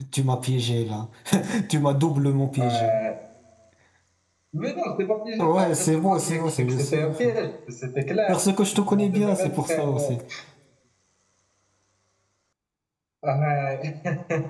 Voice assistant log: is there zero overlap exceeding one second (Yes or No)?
No